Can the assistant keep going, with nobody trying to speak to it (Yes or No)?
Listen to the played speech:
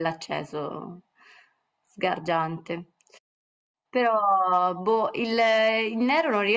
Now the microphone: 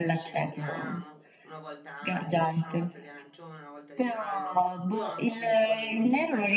No